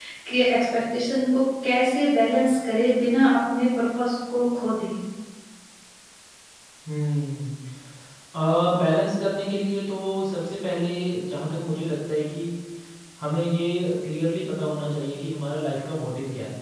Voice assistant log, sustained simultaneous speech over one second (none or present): none